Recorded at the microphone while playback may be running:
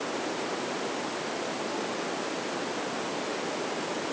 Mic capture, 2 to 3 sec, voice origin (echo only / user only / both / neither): neither